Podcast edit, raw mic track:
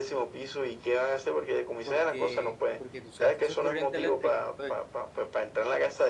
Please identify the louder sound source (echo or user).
echo